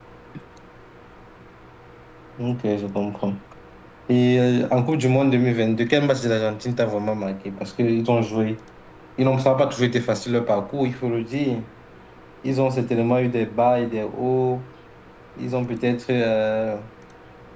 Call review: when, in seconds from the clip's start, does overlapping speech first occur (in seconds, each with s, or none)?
none